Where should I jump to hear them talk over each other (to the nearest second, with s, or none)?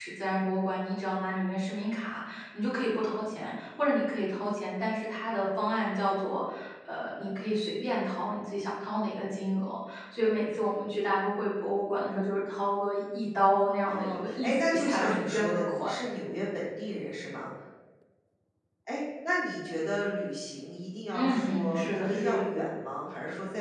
14 s